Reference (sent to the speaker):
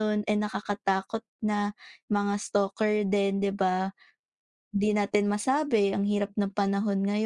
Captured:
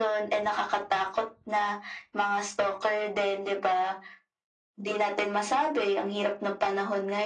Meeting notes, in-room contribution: none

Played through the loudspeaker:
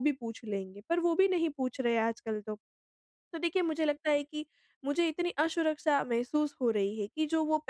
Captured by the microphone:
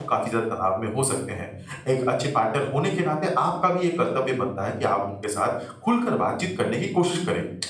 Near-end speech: present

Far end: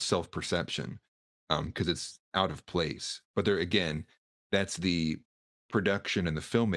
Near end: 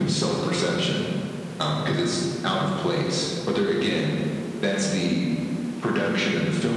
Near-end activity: none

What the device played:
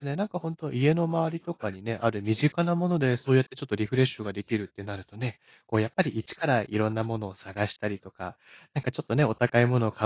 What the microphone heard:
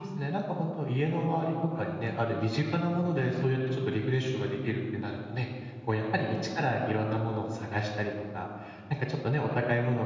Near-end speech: none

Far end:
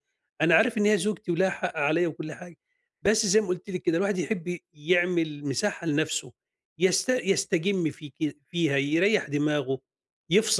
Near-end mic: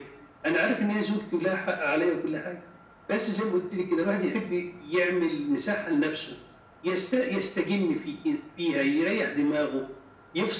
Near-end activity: none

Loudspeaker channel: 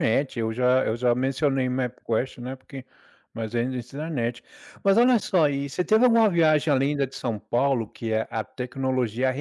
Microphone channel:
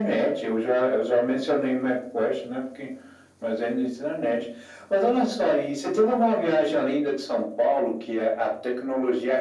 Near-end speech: none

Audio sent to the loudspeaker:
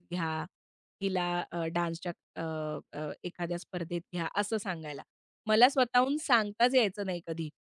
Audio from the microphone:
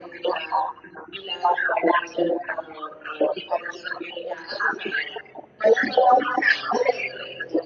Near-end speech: none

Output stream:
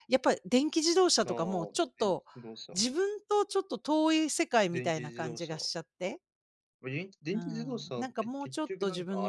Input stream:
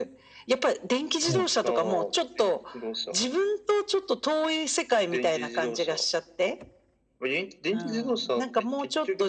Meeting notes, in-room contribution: present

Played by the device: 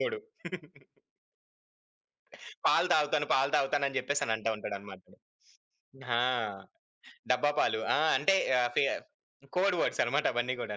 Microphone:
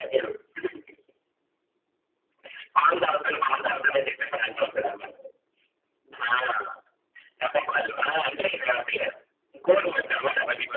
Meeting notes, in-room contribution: none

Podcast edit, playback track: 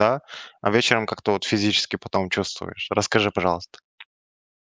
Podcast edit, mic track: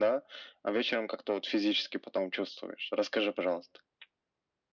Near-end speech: none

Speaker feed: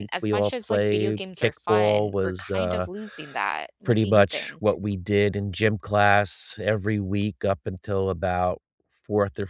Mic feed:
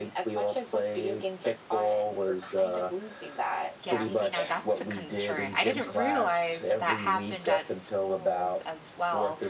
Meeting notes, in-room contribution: present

